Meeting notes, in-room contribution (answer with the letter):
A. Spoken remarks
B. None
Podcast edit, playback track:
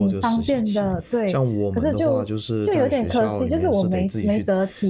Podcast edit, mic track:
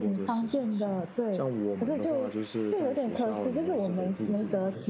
A